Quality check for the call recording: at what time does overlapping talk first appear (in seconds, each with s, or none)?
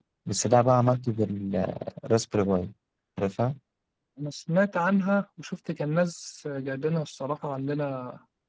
none